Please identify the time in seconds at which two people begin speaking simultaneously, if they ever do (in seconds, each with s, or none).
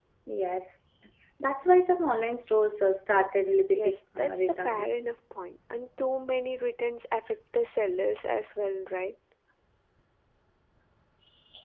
3.7 s